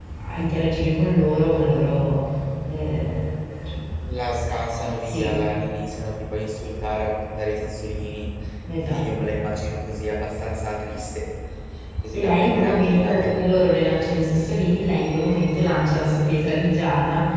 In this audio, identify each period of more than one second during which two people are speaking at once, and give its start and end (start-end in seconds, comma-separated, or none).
12.1-13.4